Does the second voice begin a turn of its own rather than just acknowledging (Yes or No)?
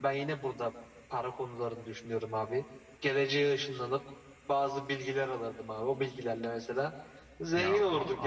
Yes